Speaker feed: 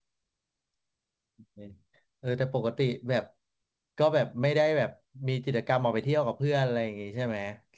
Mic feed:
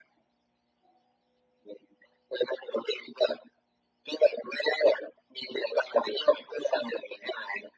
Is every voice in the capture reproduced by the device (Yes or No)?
Yes